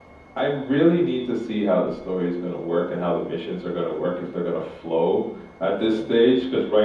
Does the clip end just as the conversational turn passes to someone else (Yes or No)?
No